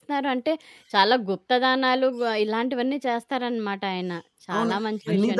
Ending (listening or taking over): taking over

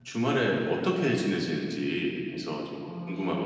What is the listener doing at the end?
taking over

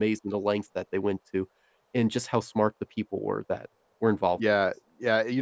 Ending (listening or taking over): taking over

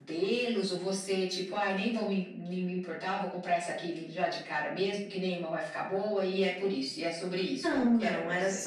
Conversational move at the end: taking over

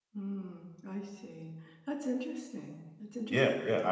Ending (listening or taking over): taking over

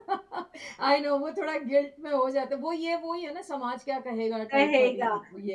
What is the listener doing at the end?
taking over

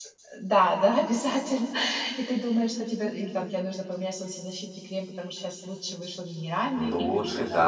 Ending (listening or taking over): taking over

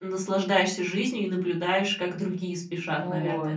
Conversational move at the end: taking over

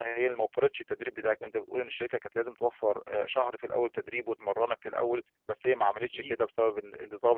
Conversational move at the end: listening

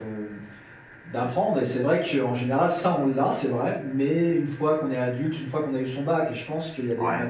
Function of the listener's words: listening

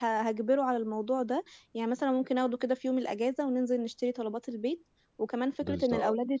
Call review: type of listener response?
listening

